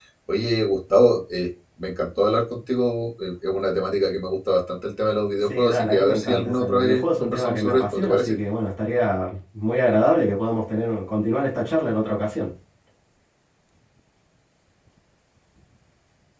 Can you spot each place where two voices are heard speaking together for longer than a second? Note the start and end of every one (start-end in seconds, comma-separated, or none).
5.5-8.4